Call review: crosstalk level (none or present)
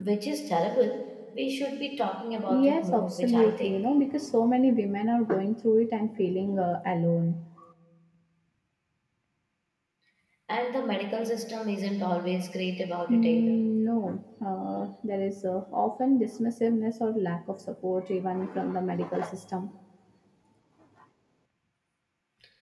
present